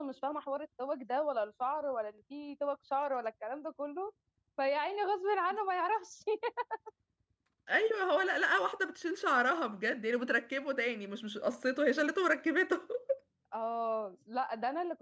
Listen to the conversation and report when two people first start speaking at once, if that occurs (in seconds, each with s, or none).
none